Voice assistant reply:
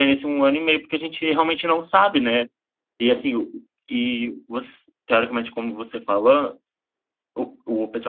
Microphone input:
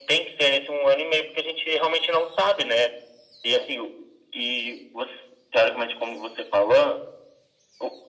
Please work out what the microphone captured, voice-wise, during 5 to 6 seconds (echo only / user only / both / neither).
echo only